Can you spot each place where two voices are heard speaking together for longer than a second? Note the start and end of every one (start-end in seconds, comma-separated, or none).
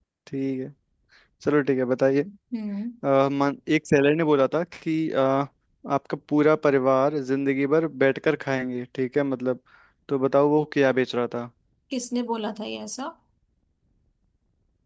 none